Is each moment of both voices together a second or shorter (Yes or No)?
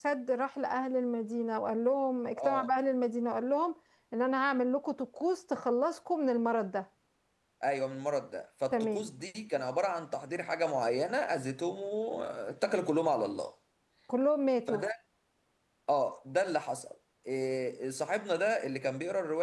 Yes